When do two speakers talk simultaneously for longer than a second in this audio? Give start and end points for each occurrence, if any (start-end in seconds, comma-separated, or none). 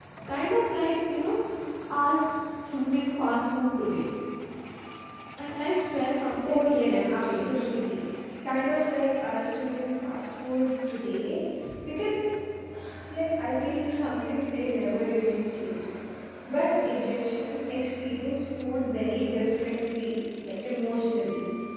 6.4-7.7